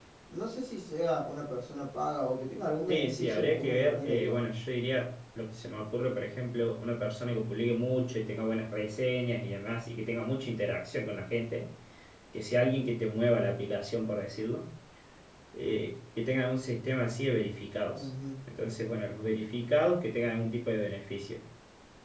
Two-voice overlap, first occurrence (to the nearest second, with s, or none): 3 s